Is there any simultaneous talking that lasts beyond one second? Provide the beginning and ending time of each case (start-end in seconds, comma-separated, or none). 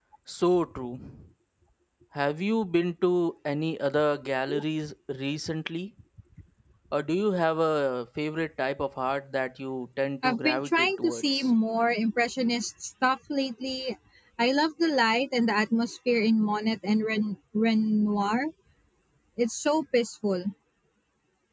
10.2-11.5